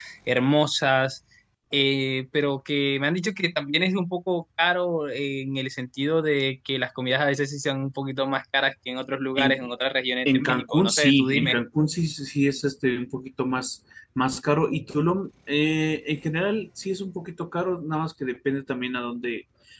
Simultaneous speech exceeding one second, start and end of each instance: 10.2-11.6

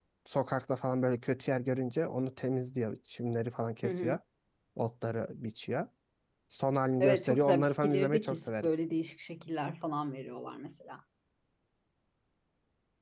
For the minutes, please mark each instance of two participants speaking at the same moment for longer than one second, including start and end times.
7.0-8.7

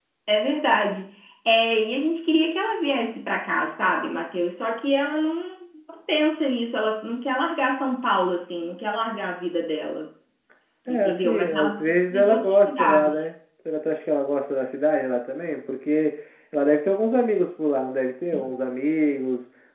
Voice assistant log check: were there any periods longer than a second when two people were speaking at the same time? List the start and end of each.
10.9-13.1

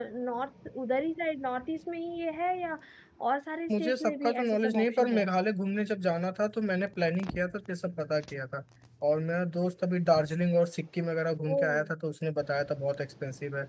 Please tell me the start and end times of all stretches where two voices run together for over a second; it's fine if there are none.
3.8-5.2

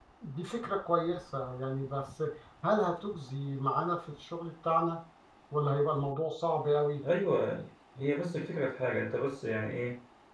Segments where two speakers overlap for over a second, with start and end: none

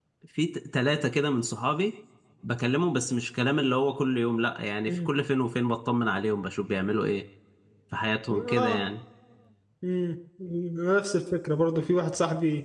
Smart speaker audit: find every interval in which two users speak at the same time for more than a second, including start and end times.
none

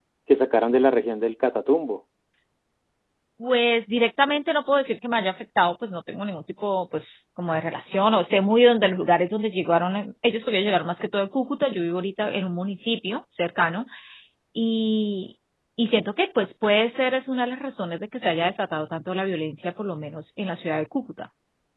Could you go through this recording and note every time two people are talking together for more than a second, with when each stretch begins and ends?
none

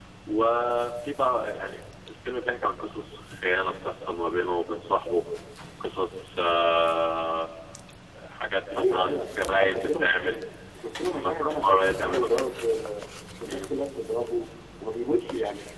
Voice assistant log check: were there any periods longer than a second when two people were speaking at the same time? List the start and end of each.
8.7-10.4, 11.0-12.3

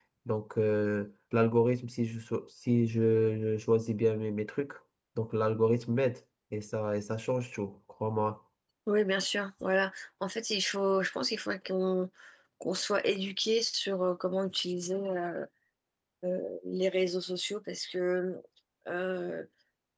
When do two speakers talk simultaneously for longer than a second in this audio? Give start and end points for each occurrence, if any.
none

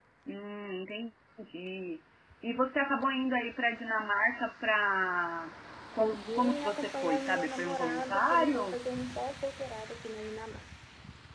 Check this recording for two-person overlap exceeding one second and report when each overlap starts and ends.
6.0-8.8

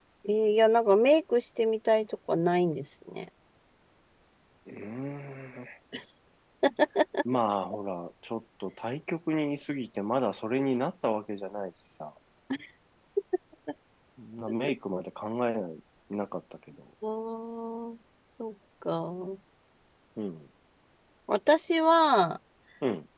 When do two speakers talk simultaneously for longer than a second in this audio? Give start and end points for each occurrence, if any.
none

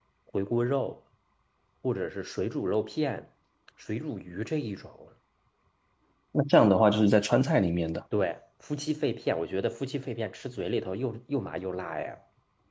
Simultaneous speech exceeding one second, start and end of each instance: none

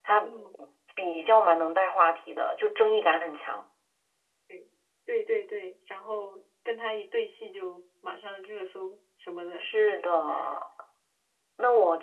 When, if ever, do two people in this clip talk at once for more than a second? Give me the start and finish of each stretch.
none

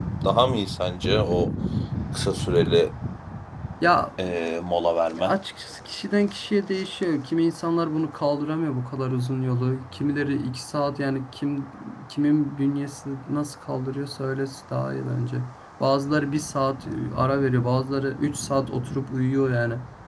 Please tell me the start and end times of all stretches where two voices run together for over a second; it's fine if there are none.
none

